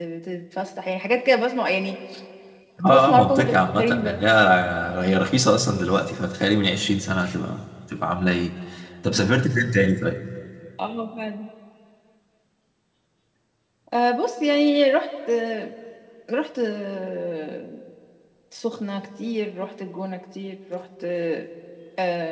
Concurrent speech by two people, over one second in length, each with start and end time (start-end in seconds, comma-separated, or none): 2.9-4.2